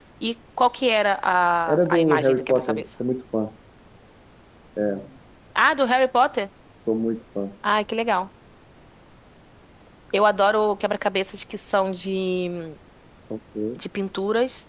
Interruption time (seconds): 2 s

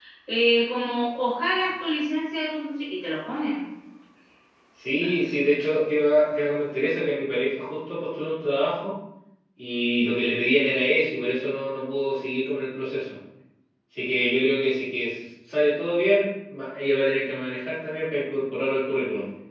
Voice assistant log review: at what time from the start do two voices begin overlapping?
none

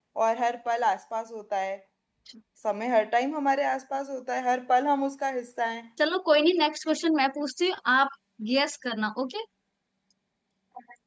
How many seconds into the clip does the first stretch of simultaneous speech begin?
none

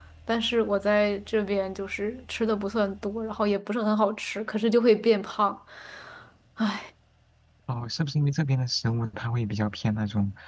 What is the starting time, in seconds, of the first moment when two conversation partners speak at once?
none

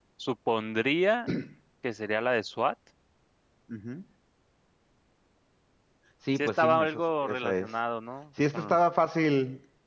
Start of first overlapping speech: 6 s

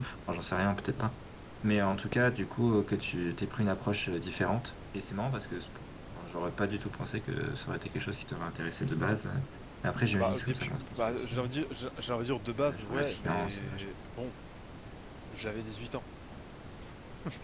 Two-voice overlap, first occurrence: 10 s

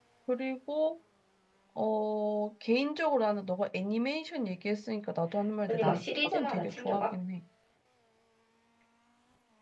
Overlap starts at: 6 s

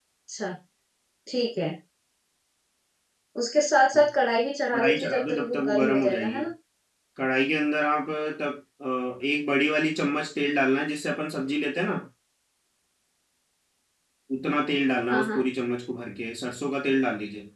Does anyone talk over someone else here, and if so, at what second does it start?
5 s

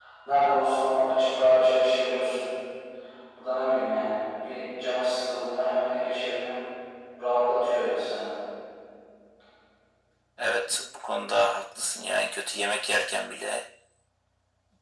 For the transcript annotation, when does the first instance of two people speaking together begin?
none

